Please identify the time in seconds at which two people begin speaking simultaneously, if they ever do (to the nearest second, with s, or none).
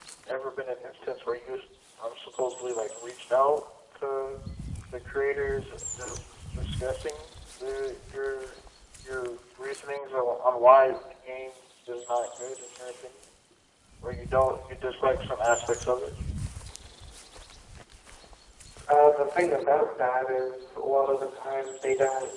none